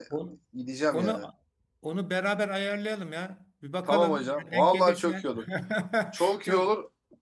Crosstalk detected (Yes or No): Yes